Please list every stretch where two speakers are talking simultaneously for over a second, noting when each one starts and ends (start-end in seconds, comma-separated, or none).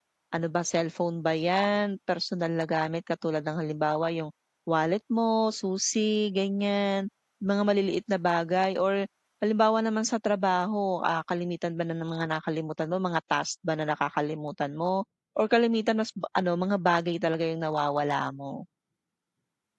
none